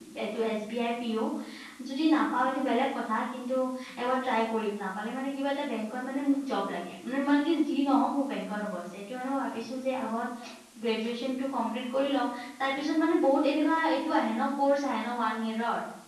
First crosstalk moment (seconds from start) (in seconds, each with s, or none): none